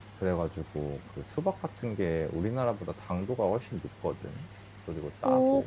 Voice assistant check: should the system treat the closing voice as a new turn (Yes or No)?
Yes